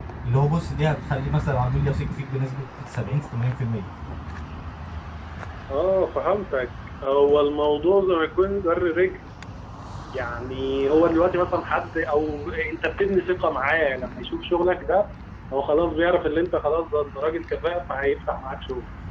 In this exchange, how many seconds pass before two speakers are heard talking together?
none

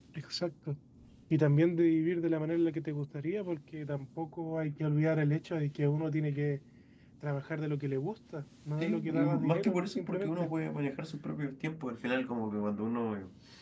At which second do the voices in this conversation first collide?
8.8 s

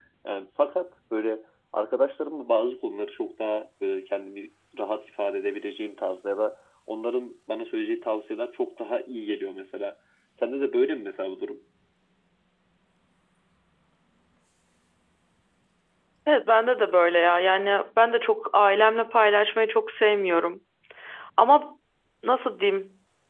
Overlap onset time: none

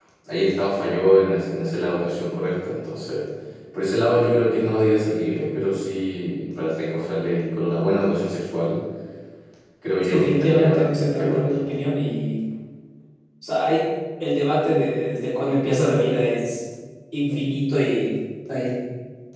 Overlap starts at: 10.0 s

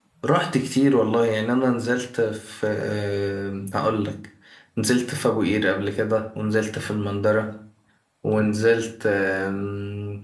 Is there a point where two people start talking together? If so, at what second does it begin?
none

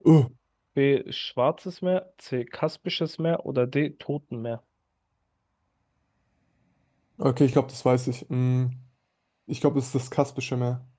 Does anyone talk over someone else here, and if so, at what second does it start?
none

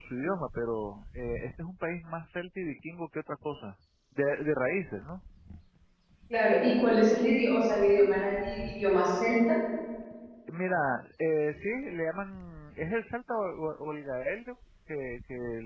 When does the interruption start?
none

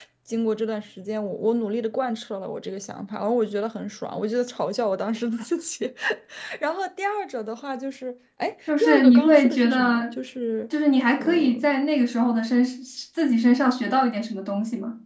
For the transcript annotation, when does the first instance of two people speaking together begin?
8.8 s

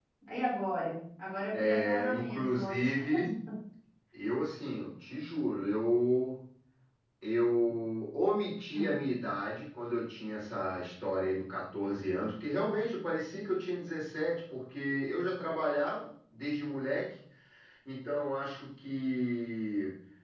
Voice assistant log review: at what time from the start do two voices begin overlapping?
1.5 s

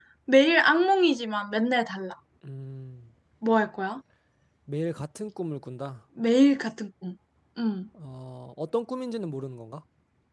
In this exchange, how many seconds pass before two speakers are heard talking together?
none

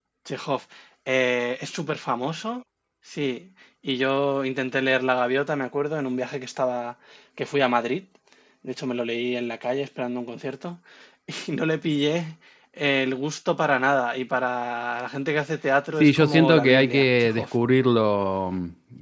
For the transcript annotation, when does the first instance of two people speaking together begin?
16.0 s

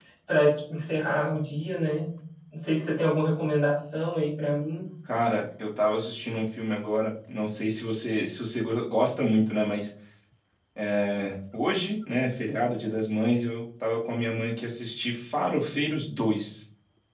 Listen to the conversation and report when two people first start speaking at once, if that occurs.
none

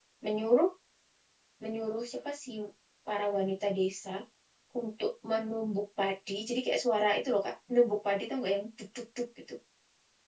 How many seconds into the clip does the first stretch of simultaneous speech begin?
none

